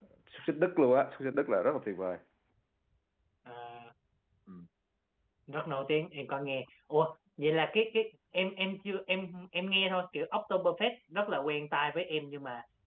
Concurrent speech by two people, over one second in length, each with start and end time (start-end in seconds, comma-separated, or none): none